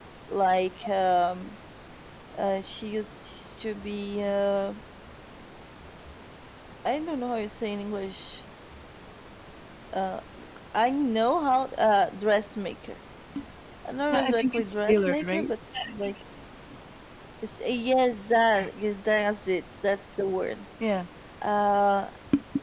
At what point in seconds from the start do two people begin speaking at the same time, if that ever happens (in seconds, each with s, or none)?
14.1 s